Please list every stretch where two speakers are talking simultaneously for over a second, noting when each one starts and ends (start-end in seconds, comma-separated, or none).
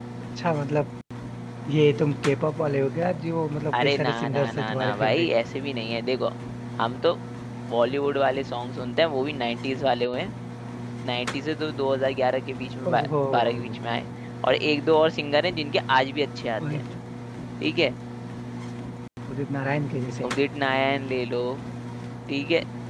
3.7-5.3